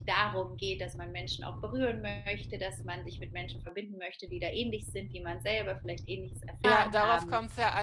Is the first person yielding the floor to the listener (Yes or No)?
Yes